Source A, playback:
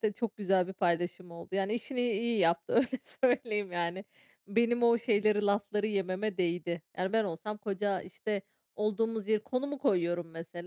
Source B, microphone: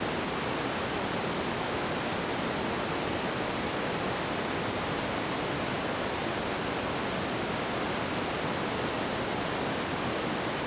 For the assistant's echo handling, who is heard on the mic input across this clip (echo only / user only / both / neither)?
neither